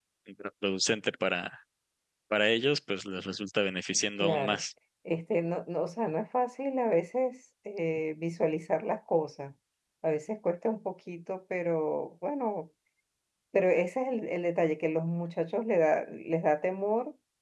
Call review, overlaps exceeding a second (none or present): none